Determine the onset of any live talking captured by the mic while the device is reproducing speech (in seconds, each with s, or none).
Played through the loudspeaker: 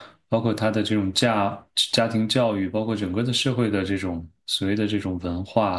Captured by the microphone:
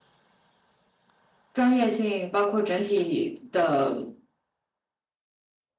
1.5 s